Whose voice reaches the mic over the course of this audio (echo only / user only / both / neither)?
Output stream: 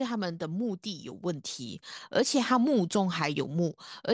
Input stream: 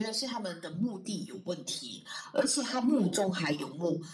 echo only